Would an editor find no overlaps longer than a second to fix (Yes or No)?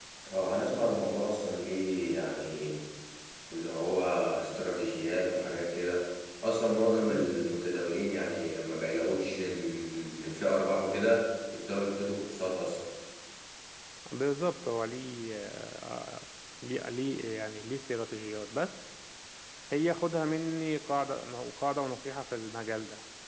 Yes